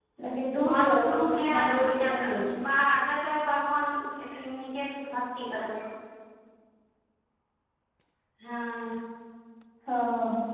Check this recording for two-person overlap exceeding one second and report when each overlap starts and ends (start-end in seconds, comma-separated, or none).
0.6-2.2